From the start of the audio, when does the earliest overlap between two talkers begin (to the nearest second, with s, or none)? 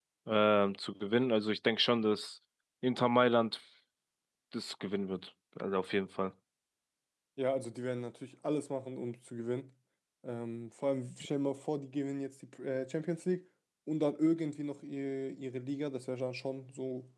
none